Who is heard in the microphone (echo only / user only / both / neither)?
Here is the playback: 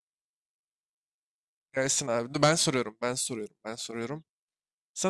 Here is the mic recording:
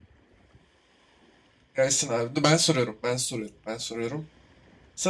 echo only